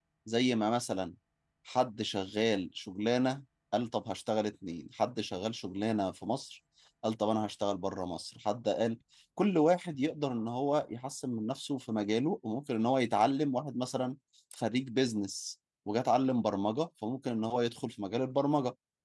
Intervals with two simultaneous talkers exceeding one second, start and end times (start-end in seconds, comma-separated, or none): none